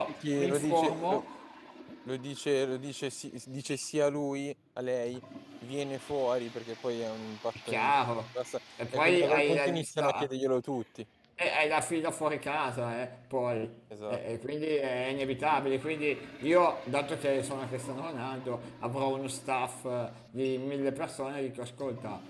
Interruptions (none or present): present